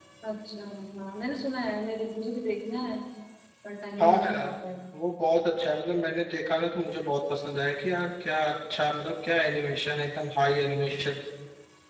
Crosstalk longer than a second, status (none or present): none